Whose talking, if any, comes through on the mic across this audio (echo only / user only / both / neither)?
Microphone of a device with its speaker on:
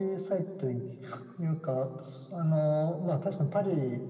echo only